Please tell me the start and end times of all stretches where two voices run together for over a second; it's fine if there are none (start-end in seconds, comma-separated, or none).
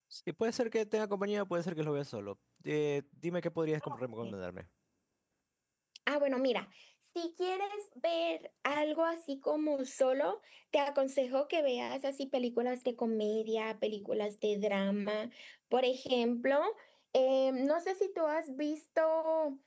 none